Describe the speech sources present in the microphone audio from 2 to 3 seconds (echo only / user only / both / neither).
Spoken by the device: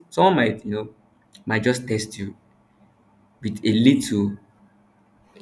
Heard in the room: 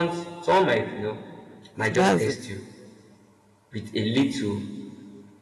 both